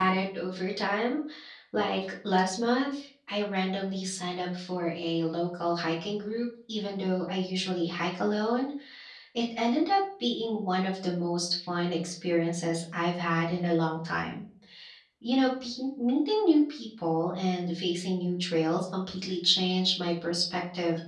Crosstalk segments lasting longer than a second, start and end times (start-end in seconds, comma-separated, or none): none